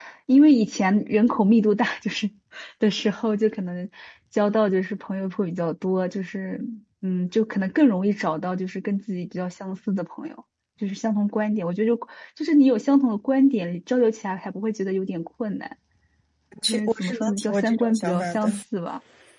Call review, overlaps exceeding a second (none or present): present